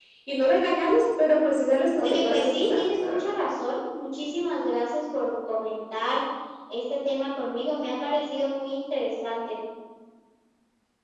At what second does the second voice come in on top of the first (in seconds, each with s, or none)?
2.0 s